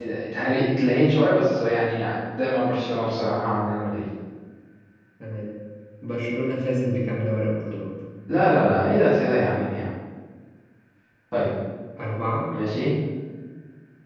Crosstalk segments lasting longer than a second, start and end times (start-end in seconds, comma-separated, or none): none